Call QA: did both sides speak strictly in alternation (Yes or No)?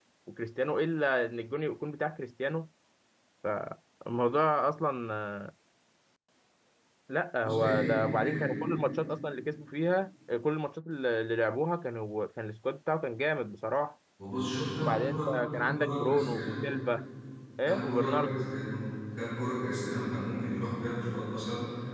No